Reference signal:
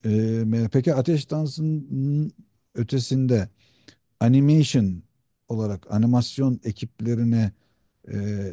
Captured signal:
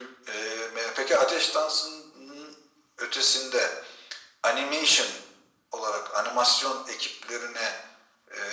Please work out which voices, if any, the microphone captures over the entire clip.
echo only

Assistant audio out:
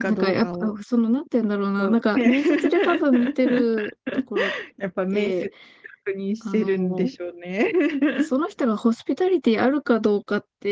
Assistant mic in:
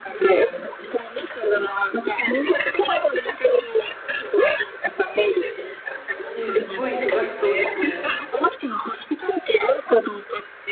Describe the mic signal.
both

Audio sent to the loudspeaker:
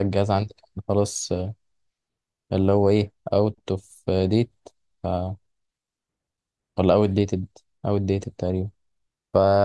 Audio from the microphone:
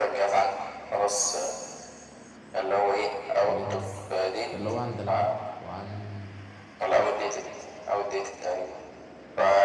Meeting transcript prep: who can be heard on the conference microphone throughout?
both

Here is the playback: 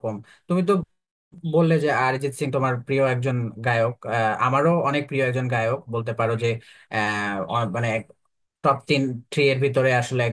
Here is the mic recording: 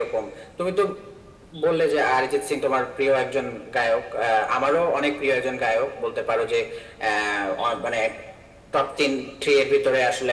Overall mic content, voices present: echo only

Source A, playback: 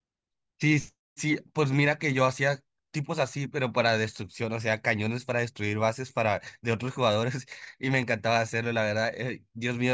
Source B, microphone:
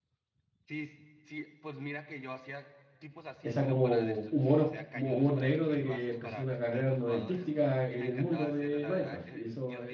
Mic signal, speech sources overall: both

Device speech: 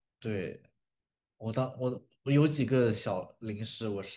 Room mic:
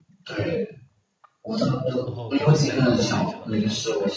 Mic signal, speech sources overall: both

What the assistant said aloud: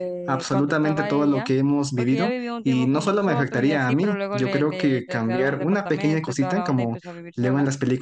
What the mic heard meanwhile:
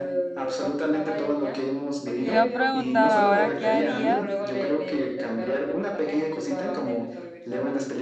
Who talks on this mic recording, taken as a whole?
both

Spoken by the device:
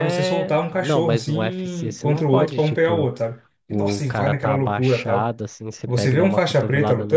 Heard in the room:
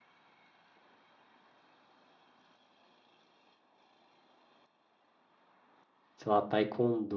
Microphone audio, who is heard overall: user only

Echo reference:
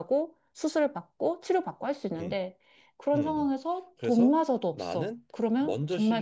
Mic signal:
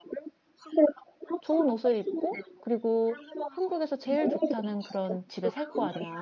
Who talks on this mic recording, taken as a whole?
both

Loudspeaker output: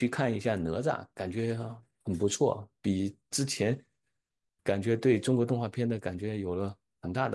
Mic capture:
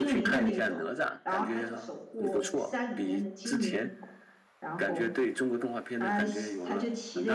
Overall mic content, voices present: both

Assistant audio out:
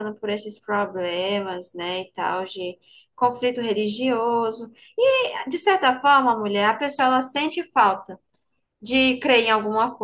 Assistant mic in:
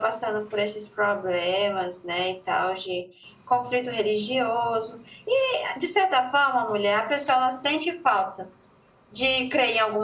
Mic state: echo only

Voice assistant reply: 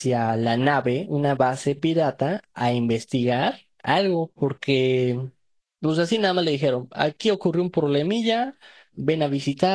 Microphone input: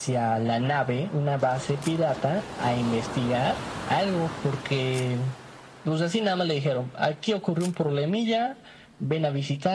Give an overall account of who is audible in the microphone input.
echo only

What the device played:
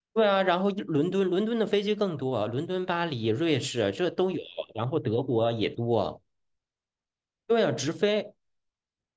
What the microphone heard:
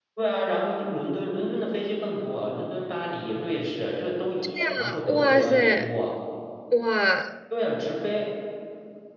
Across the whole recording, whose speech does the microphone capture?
both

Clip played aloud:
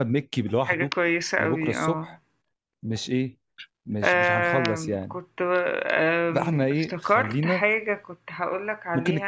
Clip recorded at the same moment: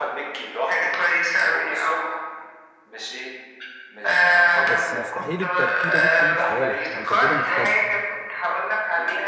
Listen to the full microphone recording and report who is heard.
both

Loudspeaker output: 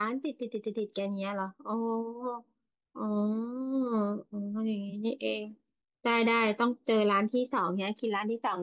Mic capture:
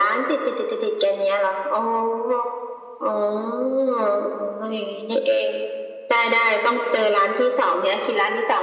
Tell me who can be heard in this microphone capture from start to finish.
echo only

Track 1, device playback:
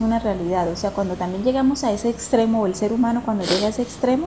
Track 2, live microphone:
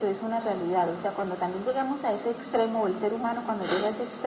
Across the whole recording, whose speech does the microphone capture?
echo only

